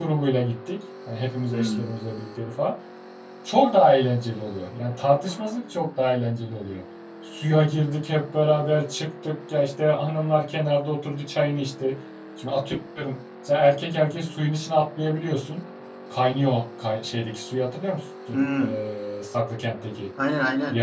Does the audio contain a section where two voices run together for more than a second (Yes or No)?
No